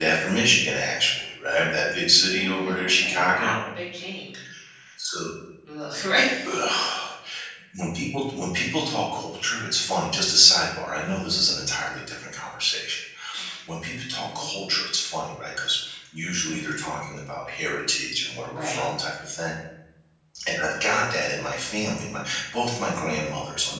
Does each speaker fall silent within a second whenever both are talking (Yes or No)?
No